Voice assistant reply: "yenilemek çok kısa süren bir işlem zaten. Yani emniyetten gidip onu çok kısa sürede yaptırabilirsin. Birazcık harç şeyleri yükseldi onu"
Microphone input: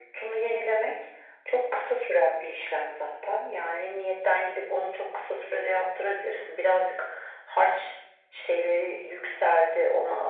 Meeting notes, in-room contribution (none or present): none